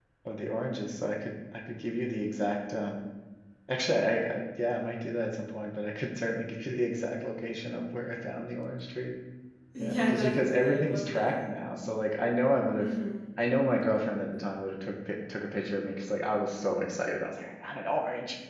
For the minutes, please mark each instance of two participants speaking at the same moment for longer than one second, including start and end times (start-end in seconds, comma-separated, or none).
9.8-11.4